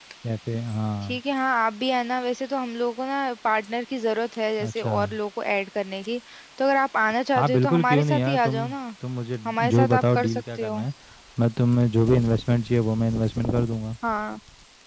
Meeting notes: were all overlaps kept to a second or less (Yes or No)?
No